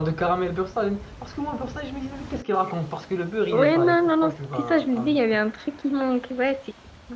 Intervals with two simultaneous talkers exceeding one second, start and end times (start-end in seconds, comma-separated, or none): 3.5-5.2